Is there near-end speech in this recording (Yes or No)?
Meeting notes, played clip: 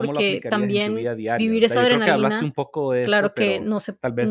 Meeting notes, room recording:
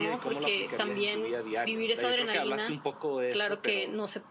No